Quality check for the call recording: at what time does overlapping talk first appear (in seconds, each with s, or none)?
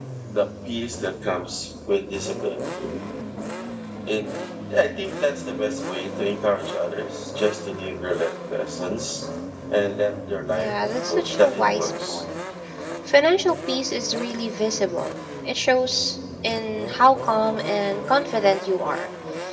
10.5 s